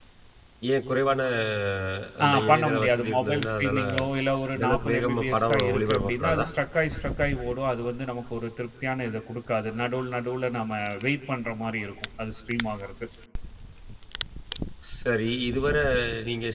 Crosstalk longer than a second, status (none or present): present